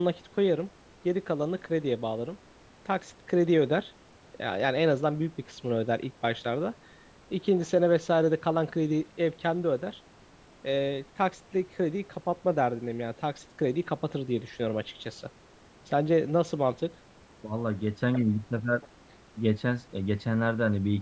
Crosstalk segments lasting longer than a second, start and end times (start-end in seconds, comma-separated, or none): none